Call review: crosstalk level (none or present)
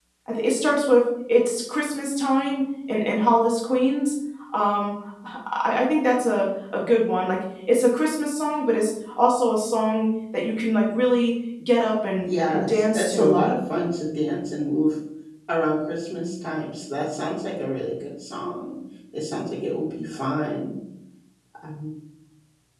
present